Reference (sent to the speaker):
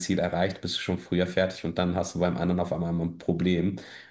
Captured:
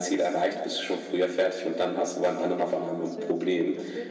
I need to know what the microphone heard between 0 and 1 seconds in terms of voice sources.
both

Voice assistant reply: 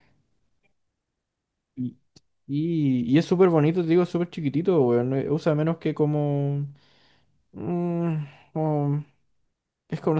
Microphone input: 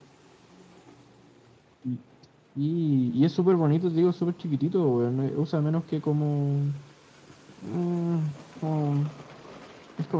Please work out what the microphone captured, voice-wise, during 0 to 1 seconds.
neither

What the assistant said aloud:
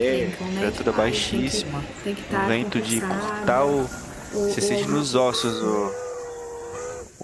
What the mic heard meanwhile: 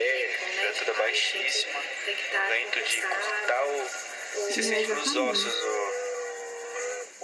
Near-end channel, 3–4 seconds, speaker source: echo only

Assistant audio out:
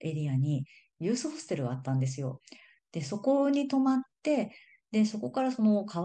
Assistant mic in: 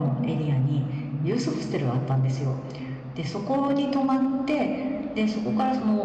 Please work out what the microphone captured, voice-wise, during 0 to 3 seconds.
echo only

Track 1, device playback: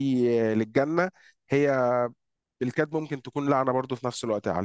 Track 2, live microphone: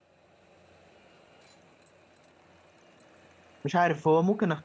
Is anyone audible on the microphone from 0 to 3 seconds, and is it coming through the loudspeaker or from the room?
neither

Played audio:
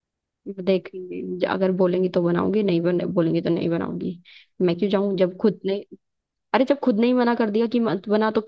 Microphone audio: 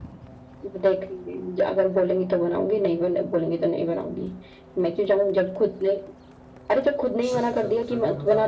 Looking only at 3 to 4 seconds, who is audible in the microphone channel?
echo only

